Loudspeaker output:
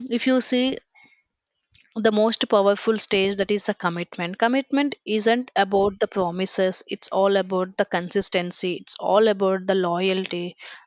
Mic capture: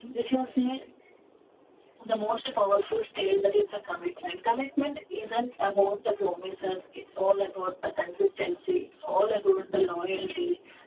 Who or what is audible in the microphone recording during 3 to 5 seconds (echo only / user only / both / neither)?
echo only